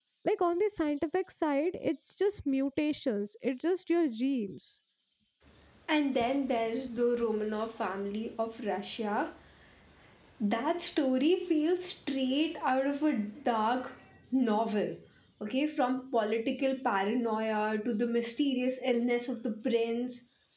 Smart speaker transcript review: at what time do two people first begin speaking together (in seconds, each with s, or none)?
none